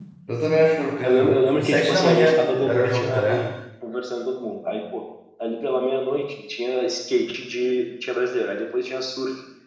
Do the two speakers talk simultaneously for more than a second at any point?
Yes, from 1.0 s

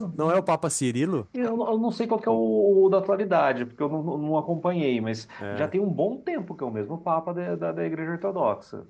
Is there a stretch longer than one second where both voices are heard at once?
No

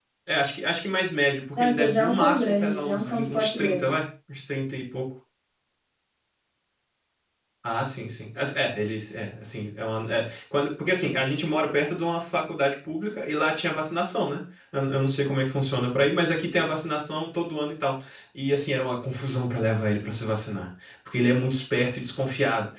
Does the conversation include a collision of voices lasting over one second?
Yes, from 1.6 s

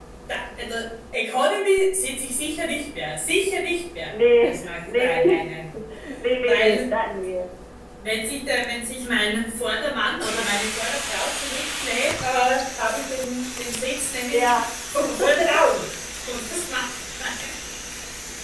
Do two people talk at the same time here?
Yes, from 4.1 s

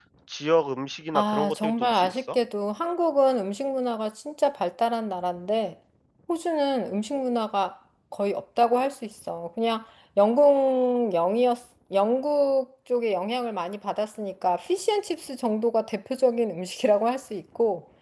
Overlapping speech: Yes, from 1.1 s

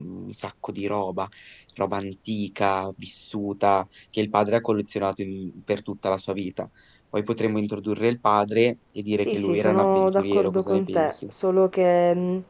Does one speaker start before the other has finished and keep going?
Yes, from 9.2 s

